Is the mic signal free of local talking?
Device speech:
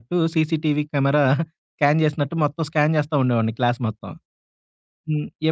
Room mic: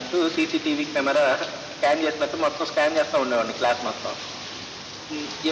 Yes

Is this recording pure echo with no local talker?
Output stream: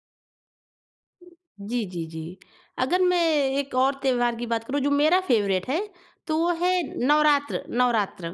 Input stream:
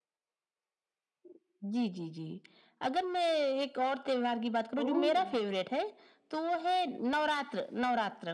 No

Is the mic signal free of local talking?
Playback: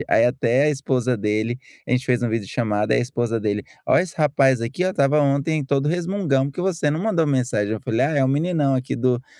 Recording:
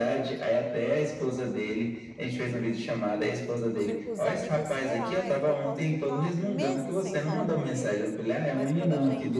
No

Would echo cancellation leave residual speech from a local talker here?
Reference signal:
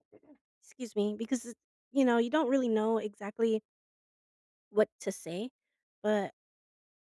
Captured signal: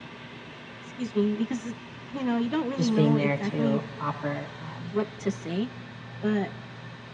Yes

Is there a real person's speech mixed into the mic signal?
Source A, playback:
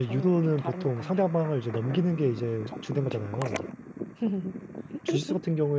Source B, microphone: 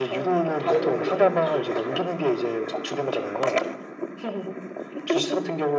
Yes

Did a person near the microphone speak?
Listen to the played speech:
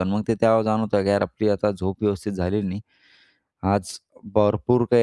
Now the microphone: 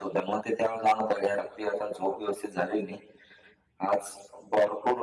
No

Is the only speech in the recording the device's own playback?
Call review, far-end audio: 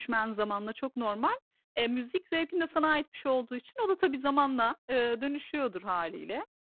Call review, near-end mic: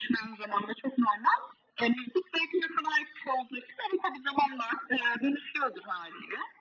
Yes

